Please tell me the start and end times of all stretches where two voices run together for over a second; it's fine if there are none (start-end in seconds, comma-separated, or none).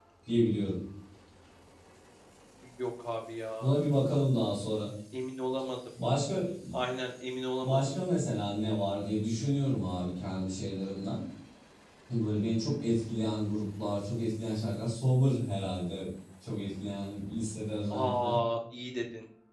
none